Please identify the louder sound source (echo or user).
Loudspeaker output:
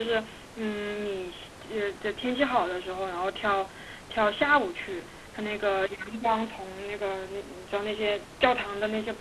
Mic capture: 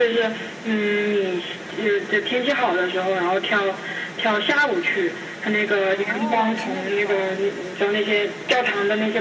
echo